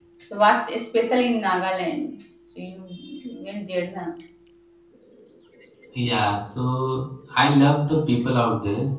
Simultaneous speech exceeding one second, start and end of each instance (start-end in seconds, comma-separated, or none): none